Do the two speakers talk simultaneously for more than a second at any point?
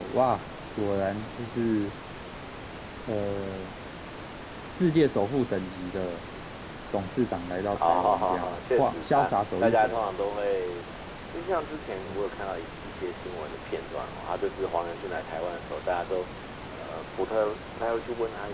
Yes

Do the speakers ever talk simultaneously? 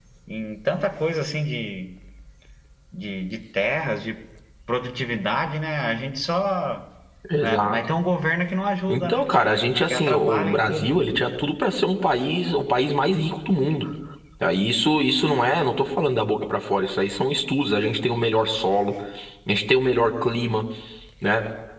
Yes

